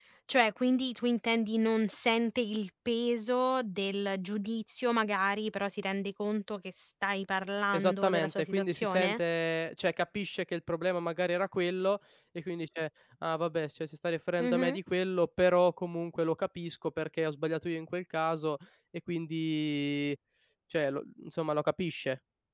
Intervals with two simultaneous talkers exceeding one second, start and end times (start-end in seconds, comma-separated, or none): 7.7-9.2